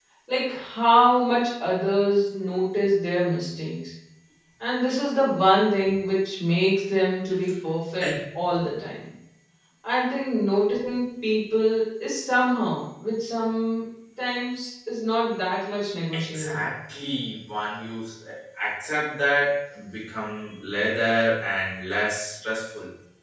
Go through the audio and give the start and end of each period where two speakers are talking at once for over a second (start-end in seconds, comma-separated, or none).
none